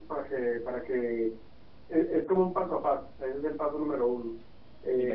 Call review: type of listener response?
listening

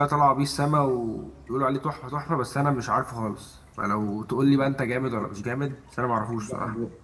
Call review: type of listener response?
taking over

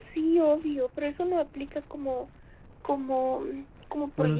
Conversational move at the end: taking over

